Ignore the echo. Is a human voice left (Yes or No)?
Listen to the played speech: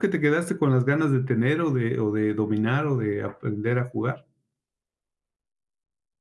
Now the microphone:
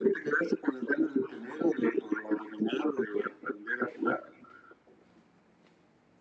No